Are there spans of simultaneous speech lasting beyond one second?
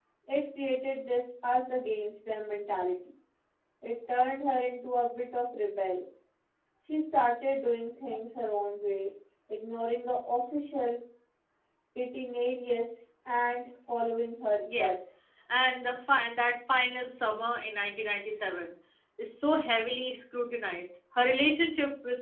No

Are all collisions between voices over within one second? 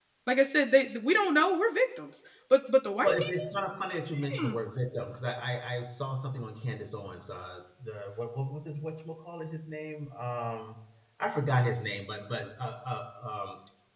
Yes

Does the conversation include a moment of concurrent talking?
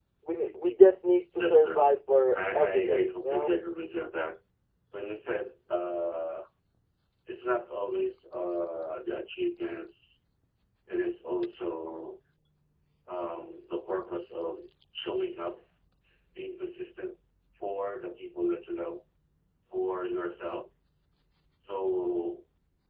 Yes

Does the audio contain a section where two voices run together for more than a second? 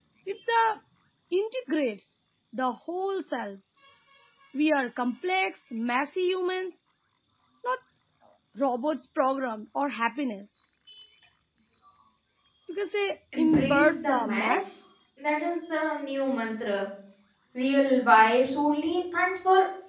Yes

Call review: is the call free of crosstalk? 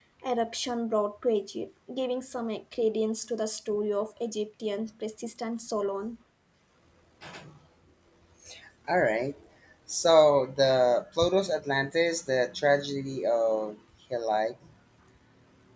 Yes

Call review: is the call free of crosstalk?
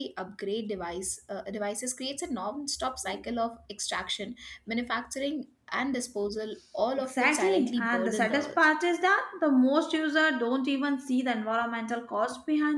No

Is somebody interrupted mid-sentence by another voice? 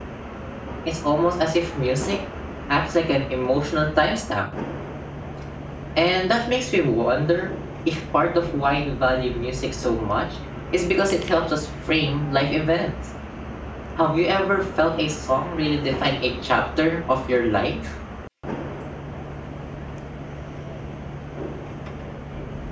No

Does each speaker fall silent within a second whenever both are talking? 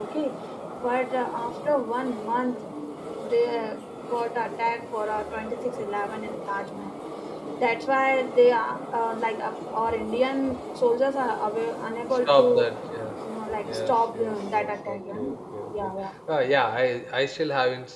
No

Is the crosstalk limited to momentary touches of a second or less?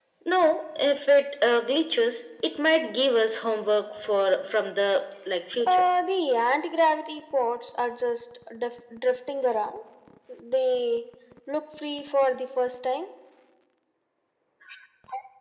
Yes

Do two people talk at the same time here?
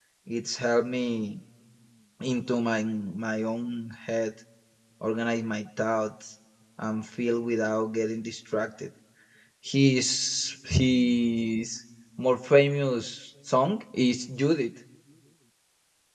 No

